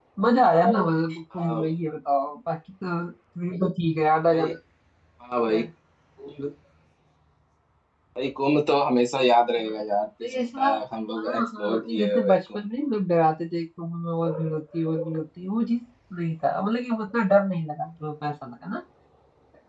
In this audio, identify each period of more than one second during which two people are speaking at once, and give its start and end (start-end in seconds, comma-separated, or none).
11.2-12.7